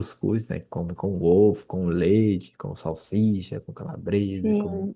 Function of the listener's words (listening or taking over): taking over